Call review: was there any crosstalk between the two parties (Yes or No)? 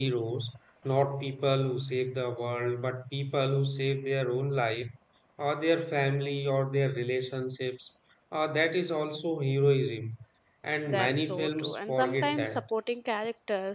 Yes